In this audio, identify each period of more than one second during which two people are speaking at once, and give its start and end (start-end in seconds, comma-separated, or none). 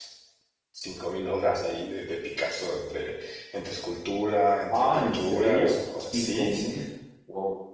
4.7-6.7